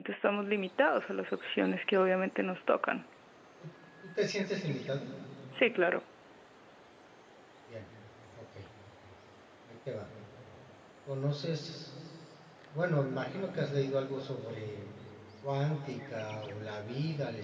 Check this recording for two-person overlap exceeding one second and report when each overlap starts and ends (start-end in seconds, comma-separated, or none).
none